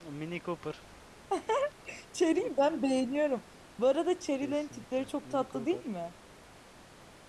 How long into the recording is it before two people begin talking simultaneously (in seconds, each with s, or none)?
4.4 s